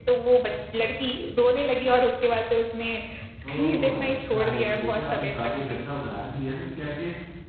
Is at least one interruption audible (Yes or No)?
Yes